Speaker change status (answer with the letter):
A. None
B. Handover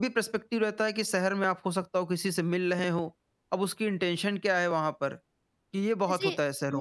B